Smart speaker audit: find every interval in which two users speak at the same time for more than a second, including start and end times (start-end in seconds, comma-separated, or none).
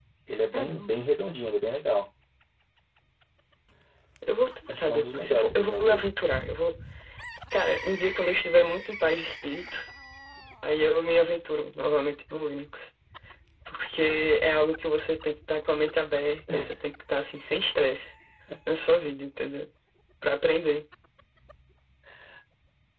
4.8-6.0